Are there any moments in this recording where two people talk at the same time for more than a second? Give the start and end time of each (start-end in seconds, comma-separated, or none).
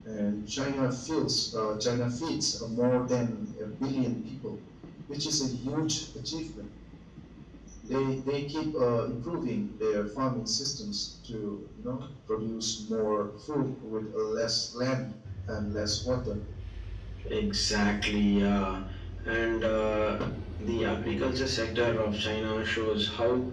none